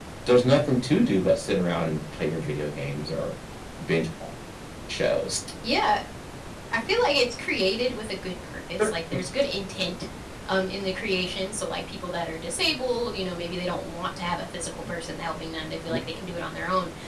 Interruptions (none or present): none